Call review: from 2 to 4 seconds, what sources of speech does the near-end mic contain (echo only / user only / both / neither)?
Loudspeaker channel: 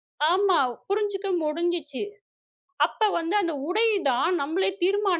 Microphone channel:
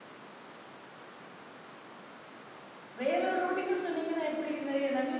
user only